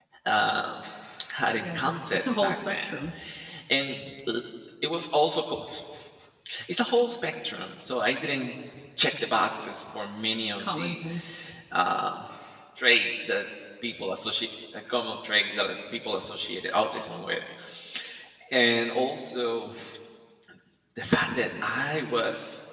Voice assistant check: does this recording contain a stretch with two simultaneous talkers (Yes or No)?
Yes